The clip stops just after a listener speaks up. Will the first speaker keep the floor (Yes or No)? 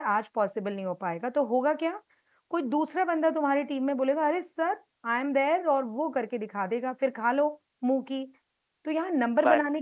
Yes